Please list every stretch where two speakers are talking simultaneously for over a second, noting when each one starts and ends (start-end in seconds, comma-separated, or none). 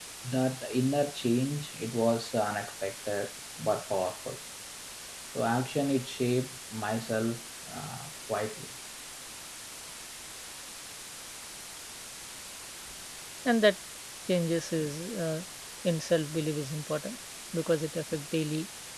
none